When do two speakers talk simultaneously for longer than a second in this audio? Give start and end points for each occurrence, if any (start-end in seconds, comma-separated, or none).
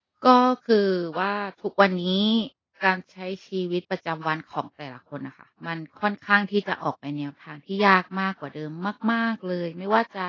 none